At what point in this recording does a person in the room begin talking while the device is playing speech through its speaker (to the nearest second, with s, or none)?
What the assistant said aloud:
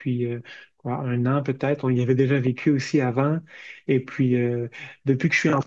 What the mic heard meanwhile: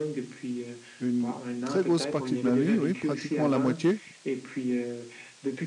1 s